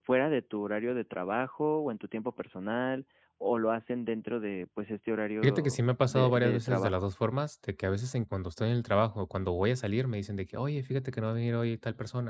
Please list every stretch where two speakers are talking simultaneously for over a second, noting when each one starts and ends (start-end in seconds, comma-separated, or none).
5.4-7.0